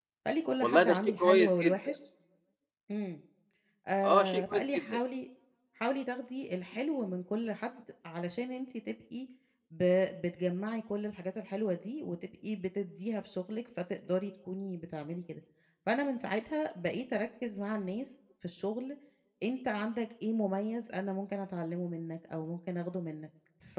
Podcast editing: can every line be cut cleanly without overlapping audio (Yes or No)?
No